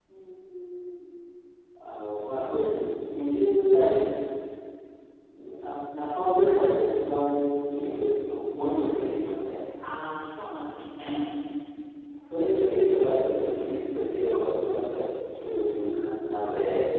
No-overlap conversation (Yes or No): No